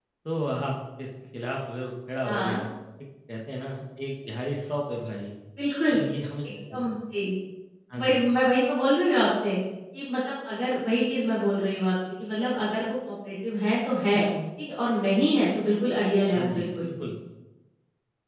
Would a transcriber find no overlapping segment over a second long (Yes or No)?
Yes